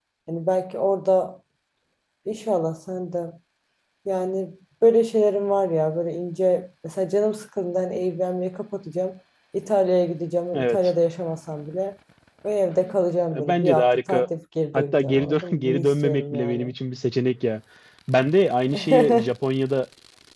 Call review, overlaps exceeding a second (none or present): present